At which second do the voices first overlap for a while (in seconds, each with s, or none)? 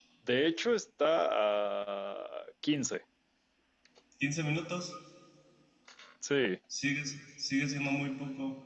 none